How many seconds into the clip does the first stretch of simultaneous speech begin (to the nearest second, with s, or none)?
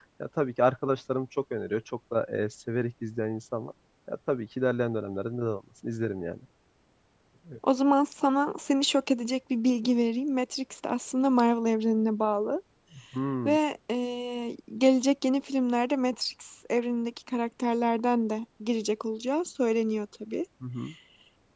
none